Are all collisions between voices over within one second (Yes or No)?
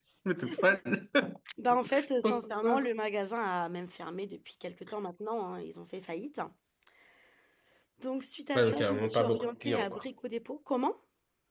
No